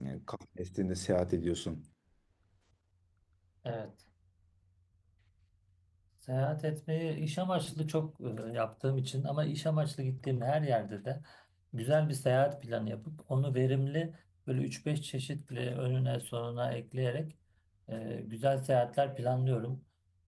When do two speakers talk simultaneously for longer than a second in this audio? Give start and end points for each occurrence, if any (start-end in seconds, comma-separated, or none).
none